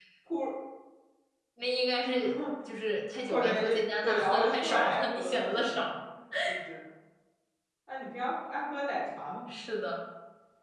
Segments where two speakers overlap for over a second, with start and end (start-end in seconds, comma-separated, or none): 4.0-5.8